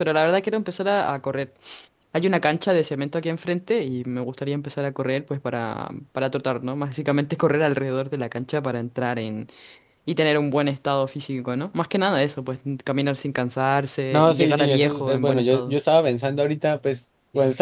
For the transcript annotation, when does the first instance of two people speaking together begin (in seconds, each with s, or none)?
14.1 s